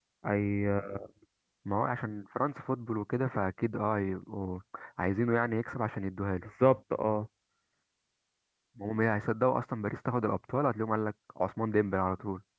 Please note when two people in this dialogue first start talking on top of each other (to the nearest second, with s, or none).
none